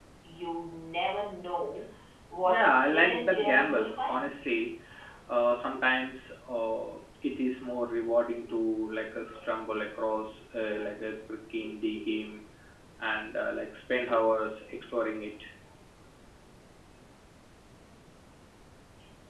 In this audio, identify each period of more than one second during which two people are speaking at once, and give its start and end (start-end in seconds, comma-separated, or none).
2.4-4.3